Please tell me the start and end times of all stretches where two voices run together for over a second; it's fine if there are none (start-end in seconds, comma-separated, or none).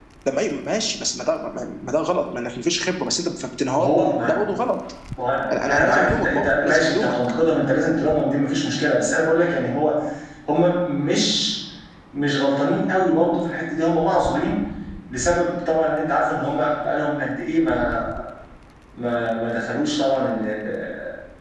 5.6-7.2